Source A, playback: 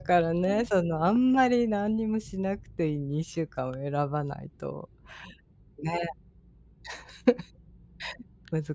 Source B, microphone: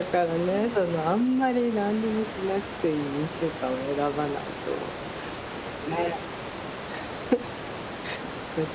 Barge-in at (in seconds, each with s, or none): none